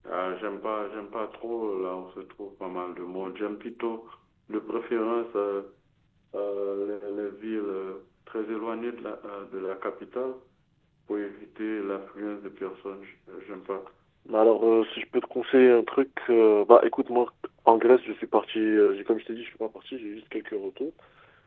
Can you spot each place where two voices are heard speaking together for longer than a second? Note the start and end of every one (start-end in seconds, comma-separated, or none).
none